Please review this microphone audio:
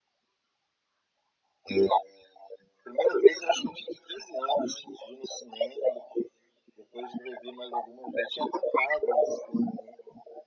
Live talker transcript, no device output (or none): none